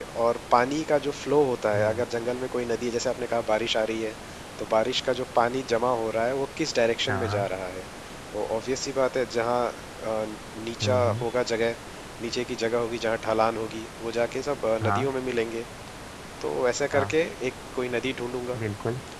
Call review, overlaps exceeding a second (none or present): none